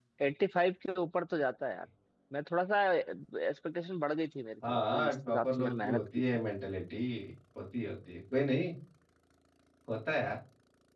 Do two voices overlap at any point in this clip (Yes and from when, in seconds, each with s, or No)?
Yes, from 4.6 s